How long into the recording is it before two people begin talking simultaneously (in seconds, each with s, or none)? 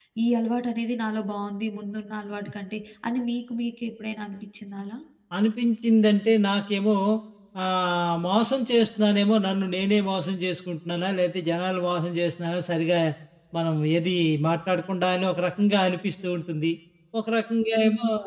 none